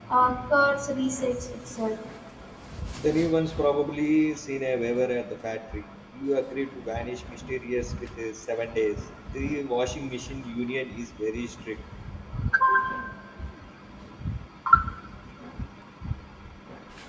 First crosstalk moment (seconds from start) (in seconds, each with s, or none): none